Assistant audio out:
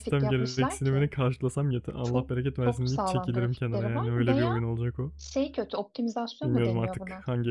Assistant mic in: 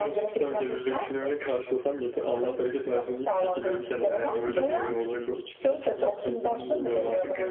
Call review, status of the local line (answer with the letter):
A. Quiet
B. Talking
B